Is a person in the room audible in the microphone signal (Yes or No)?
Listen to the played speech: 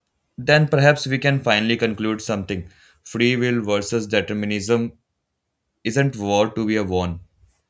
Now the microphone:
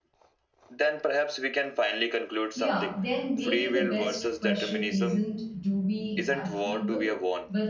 Yes